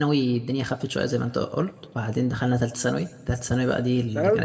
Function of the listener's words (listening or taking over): taking over